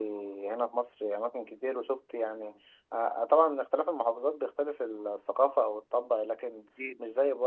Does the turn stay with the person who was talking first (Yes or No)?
Yes